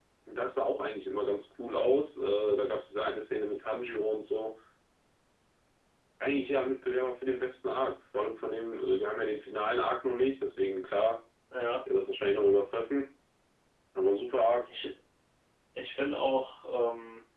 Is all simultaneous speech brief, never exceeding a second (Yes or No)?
Yes